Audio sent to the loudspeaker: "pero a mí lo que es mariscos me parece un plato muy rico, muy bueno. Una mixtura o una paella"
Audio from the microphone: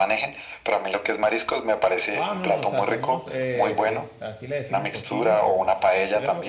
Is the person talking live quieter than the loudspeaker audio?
Yes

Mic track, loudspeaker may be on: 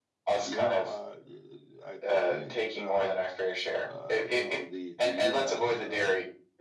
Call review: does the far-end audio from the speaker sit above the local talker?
Yes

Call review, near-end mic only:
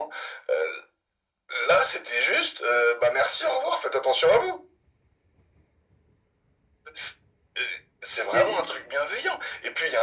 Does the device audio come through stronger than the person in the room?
Yes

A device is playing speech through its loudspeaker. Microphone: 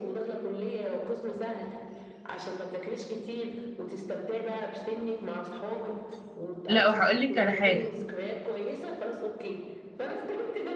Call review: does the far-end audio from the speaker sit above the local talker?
No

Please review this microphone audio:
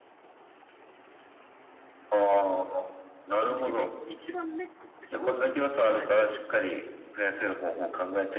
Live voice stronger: No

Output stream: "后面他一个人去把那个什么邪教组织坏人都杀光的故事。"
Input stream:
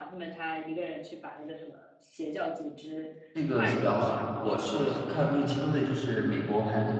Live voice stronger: Yes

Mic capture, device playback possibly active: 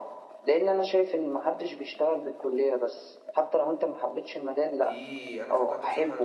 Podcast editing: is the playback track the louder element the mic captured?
Yes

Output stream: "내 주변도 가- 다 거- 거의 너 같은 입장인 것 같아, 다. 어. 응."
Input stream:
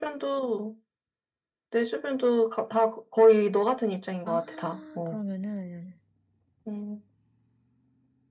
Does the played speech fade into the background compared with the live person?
No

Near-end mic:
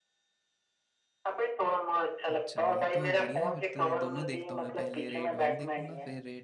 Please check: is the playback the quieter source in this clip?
No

